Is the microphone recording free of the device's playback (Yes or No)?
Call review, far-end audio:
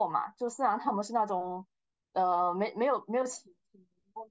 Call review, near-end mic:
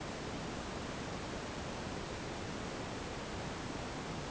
Yes